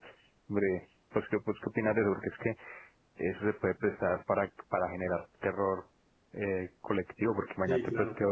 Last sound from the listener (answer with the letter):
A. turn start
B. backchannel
B